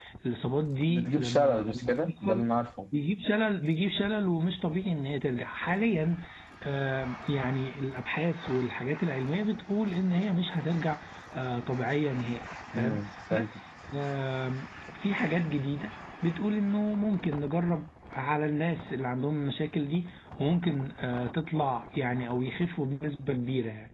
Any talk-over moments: Yes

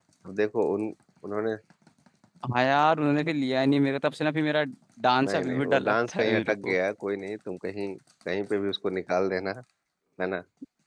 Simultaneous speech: Yes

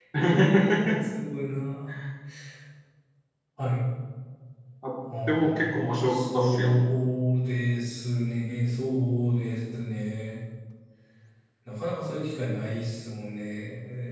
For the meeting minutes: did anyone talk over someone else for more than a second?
Yes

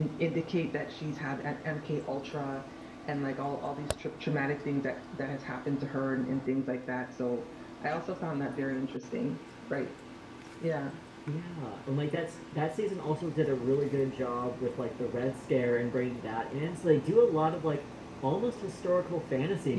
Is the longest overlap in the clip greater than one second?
No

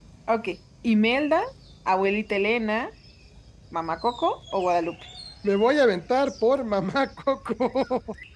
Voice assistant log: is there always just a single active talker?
Yes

